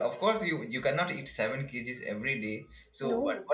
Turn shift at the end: No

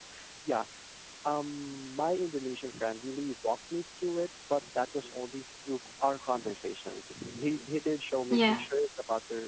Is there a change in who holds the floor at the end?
No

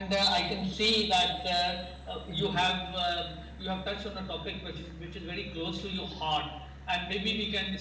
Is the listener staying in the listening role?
Yes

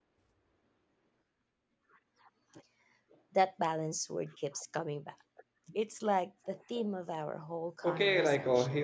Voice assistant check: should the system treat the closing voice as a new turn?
Yes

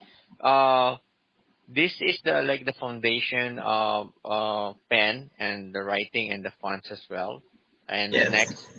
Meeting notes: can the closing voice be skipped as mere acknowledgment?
Yes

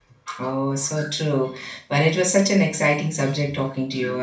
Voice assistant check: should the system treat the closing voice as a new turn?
No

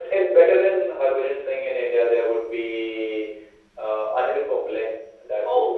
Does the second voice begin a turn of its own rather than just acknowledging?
Yes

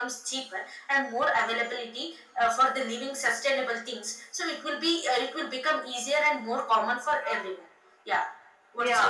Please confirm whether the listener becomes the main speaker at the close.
Yes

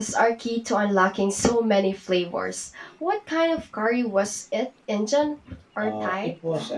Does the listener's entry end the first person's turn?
Yes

